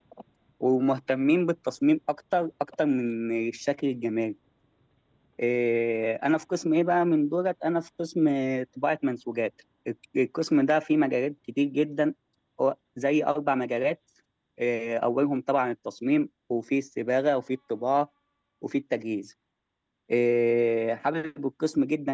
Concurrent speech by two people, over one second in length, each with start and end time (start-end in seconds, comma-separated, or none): none